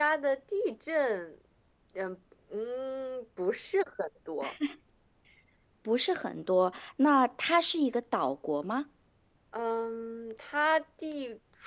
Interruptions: none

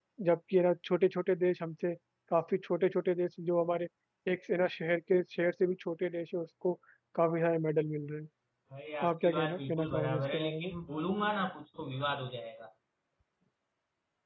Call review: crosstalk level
present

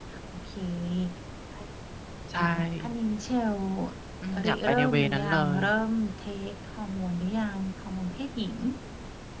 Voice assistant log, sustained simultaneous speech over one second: present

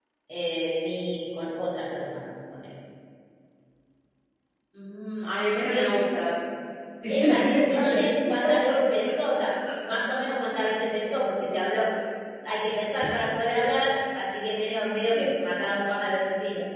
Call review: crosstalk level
present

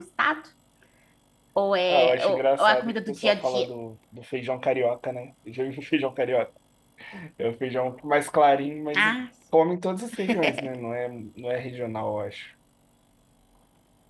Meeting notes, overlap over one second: present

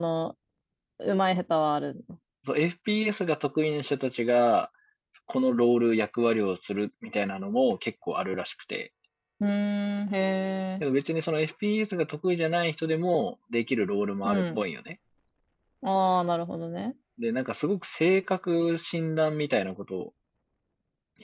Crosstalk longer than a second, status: none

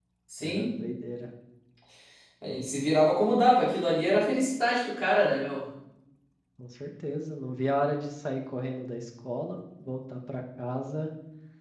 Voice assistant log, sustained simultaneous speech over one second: none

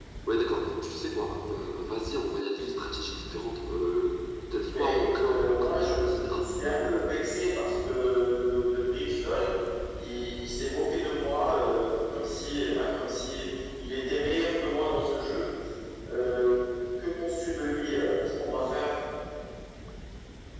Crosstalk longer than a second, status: present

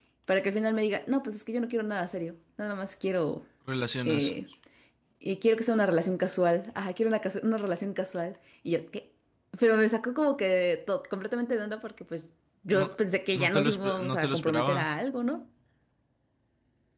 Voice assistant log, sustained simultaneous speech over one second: present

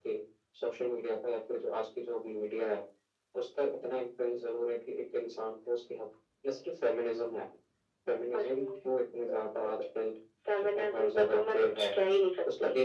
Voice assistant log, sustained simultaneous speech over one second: present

